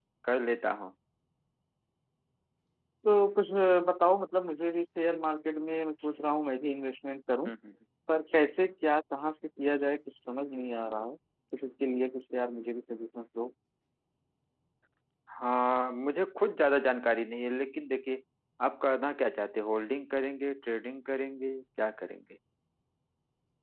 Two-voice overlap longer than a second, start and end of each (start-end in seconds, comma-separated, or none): none